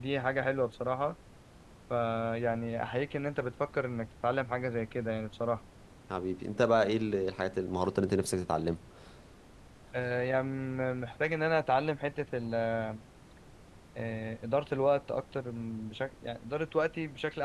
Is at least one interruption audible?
No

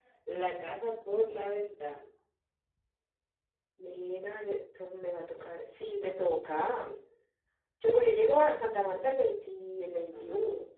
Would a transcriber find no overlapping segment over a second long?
Yes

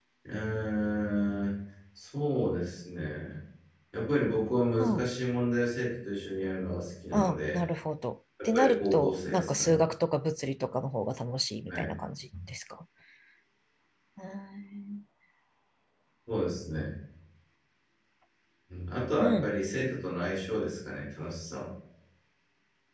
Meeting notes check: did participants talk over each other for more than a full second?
Yes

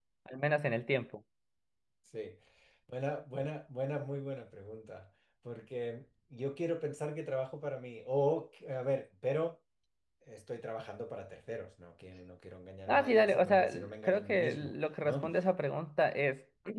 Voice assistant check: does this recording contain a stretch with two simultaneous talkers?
Yes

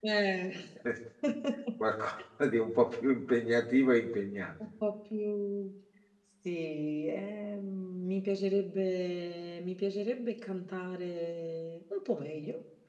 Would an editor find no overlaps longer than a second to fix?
Yes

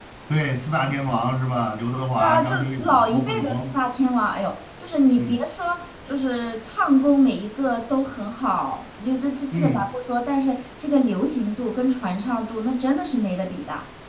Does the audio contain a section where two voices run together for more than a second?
Yes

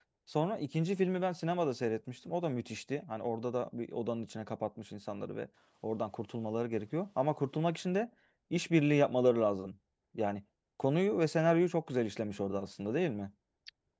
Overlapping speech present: No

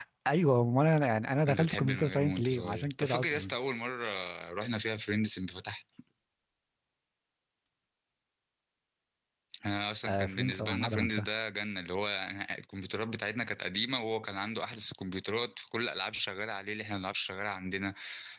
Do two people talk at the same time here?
Yes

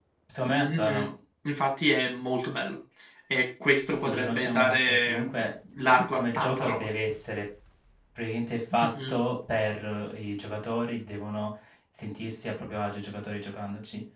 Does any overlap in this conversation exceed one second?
Yes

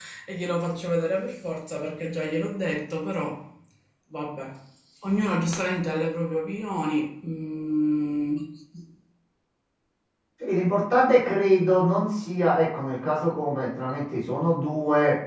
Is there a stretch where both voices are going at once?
No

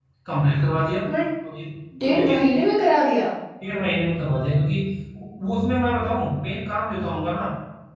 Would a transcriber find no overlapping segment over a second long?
Yes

